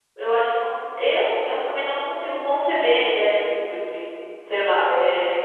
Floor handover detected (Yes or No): Yes